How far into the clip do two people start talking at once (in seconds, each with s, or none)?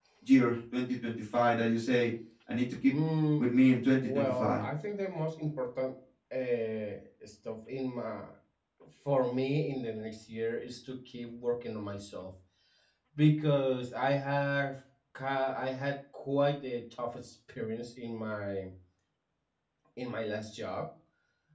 3.4 s